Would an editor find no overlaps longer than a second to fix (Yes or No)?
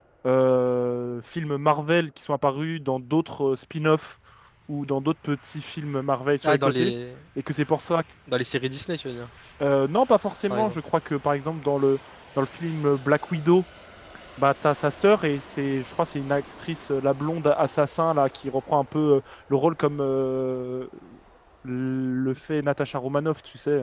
Yes